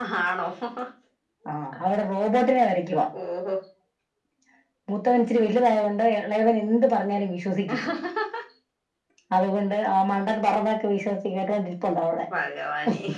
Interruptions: none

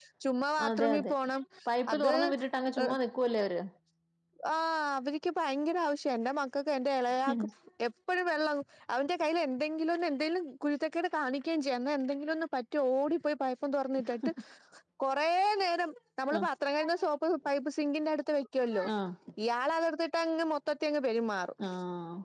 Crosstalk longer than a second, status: none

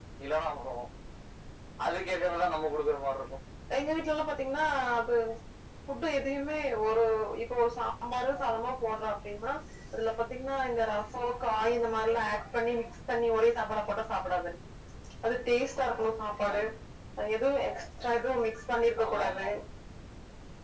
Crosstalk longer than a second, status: none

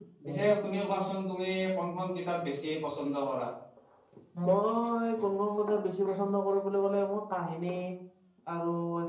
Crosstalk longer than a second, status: none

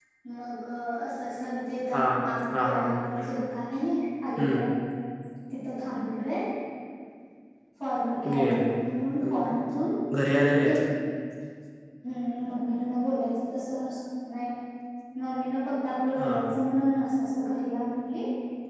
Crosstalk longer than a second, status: none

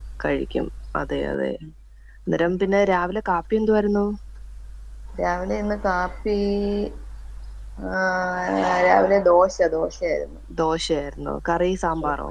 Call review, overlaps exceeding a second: none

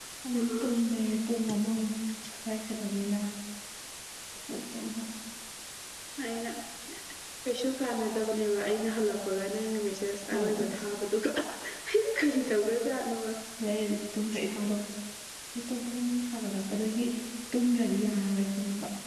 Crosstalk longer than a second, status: none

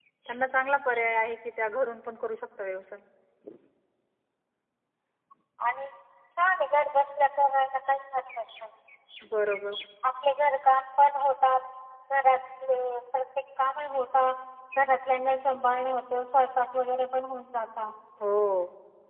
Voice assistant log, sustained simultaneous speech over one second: none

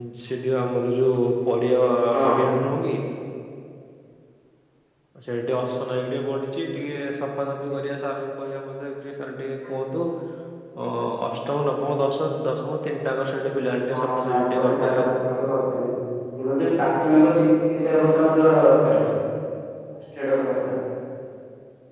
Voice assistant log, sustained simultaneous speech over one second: present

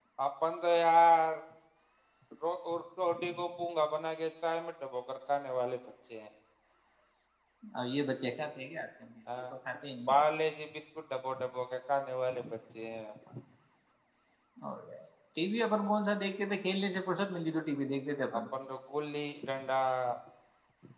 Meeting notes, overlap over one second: none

